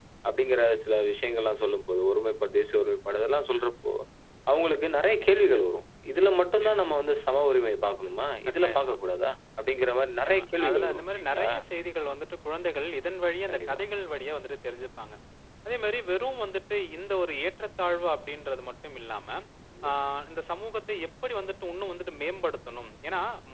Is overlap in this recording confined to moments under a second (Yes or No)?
No